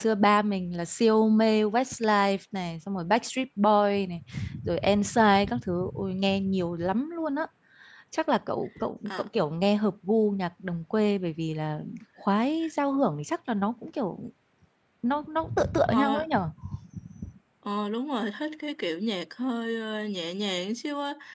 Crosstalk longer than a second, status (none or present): none